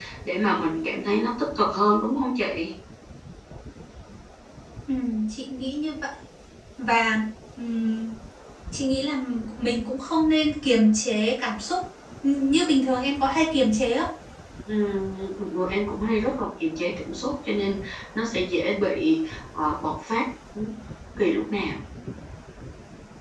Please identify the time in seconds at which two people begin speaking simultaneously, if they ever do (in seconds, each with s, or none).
none